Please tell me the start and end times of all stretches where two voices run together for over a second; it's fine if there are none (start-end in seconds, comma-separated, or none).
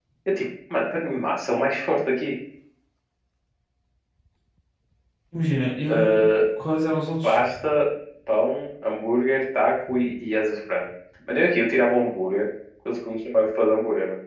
none